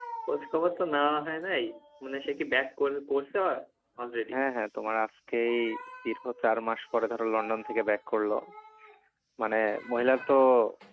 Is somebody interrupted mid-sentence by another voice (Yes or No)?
No